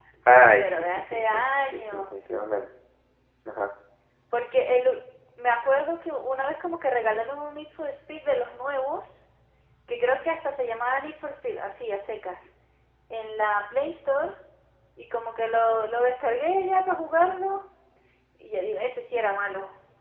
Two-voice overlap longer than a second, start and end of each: 0.6-2.0

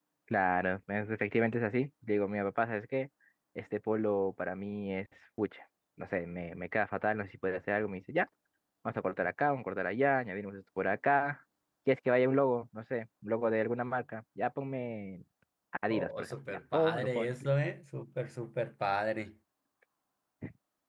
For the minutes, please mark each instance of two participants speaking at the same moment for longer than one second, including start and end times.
15.9-17.3

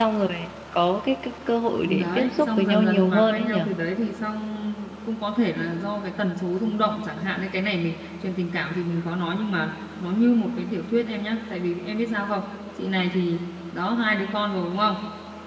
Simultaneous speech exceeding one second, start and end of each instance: 1.8-3.7

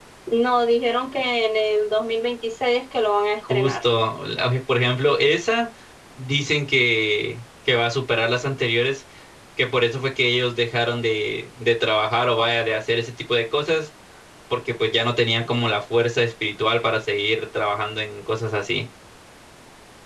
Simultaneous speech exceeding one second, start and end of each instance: none

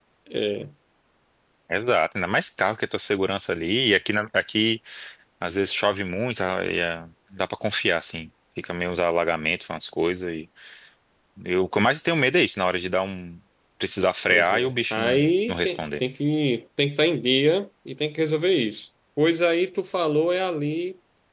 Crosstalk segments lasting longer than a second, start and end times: 14.3-16.0

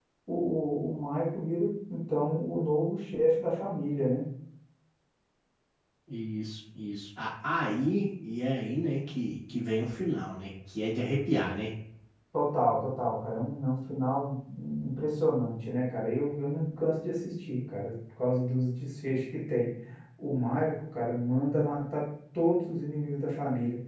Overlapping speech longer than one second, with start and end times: none

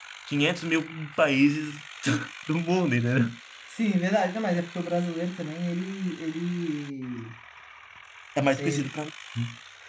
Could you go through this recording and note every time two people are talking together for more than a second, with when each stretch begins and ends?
none

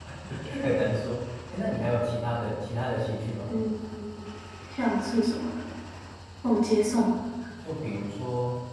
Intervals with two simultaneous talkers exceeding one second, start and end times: none

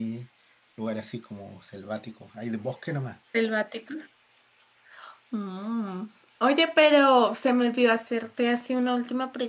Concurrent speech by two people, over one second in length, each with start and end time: none

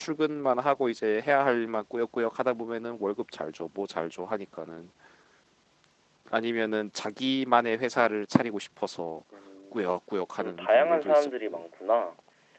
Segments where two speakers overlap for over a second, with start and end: 10.4-11.6

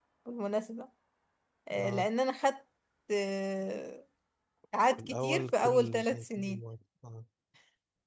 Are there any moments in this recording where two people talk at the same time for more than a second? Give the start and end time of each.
5.0-6.6

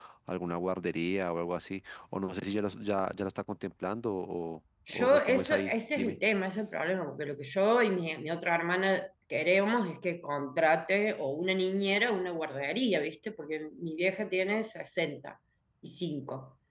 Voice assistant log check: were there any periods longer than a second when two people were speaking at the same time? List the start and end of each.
4.9-6.2

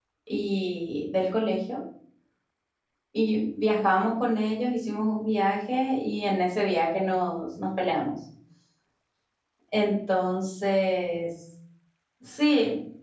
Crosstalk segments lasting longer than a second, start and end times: none

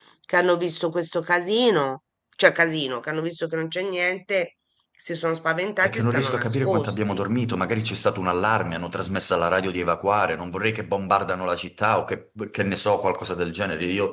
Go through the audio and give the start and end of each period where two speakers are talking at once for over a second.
5.8-7.3

